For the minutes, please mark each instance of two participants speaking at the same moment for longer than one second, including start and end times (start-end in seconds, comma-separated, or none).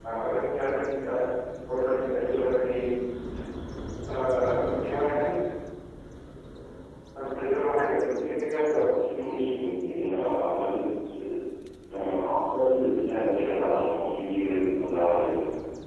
none